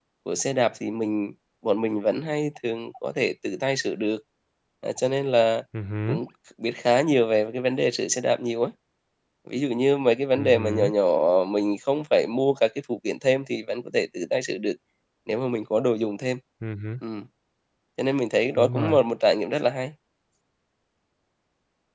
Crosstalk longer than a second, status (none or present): none